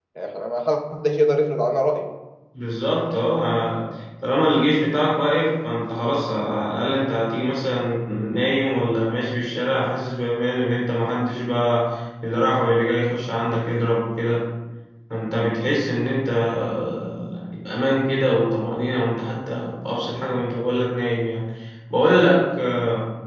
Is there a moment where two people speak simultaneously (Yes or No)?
No